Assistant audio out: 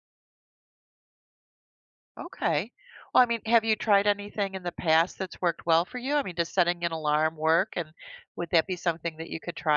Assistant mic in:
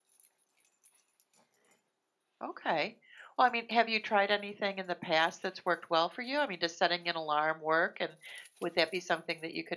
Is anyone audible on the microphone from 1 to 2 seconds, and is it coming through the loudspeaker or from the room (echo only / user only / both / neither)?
neither